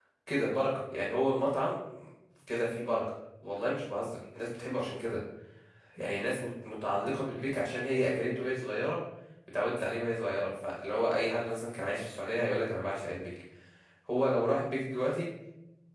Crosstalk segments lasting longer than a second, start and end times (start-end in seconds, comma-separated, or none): none